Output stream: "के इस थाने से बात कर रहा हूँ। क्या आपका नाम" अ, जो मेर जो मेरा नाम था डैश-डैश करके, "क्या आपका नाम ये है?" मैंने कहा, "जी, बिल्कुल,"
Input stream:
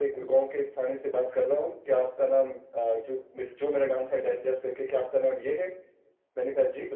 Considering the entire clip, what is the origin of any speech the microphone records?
echo only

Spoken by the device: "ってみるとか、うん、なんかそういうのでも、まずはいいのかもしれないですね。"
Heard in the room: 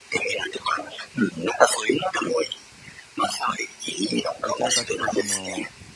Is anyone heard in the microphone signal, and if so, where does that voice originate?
both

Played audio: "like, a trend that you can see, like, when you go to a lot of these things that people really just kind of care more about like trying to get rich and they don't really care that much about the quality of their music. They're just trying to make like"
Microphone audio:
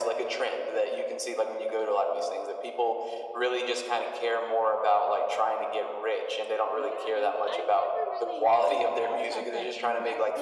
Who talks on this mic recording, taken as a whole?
both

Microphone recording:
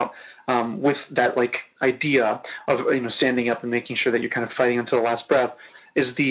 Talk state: echo only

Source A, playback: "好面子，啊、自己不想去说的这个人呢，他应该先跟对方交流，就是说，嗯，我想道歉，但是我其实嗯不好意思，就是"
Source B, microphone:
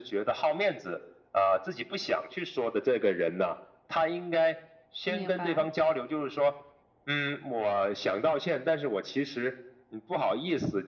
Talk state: both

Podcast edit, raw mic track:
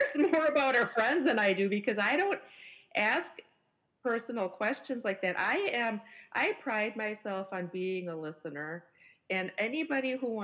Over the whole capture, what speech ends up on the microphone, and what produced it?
echo only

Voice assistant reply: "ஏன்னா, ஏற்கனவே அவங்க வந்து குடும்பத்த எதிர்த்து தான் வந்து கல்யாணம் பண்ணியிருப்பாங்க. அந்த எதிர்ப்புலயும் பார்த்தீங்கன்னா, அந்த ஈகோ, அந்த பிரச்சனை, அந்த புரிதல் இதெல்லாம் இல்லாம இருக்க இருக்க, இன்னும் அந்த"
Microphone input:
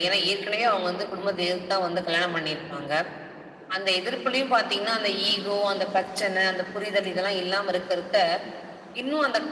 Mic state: echo only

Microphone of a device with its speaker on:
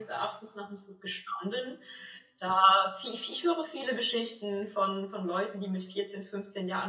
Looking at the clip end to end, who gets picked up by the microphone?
echo only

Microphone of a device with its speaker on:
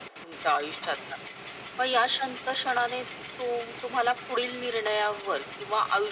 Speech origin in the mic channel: echo only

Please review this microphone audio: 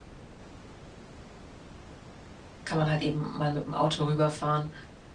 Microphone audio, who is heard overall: user only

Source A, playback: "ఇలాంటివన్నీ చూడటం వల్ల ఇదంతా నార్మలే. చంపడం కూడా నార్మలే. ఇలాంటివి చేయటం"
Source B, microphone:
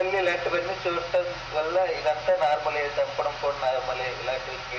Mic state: echo only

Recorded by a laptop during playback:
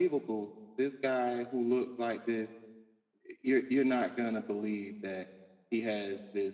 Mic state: echo only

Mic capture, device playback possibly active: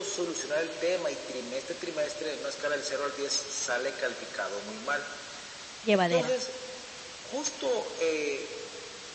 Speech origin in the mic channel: both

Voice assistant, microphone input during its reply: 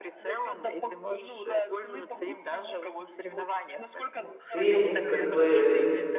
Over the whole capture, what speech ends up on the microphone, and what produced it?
both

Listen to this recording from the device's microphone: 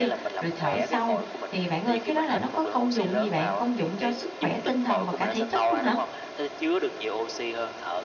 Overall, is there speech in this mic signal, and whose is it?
both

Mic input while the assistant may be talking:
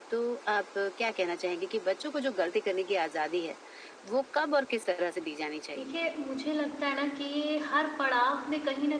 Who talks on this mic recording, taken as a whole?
both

